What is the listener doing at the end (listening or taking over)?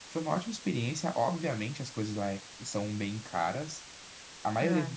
listening